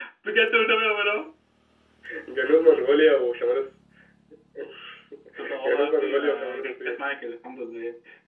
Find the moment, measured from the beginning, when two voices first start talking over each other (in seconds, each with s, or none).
5.6 s